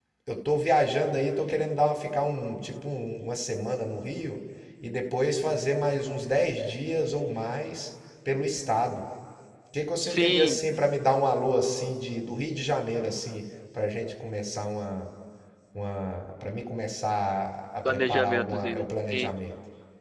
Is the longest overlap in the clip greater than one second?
Yes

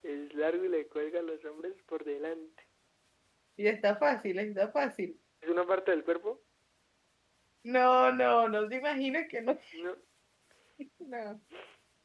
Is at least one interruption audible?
No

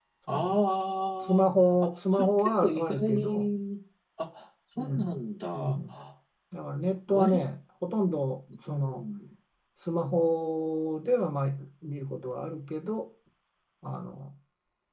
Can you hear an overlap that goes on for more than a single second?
Yes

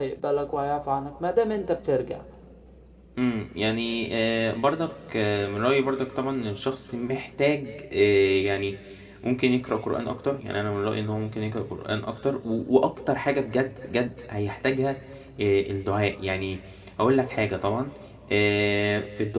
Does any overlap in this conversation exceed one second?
No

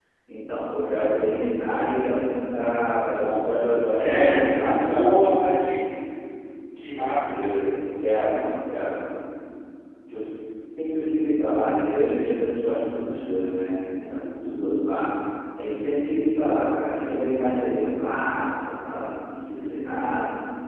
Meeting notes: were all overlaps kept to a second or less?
No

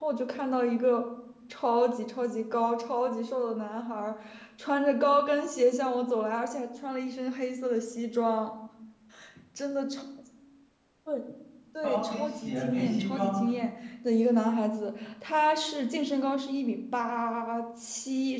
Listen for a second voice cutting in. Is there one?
Yes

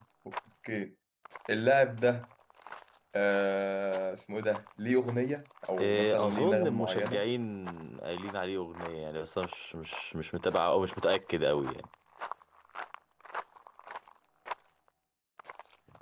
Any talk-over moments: Yes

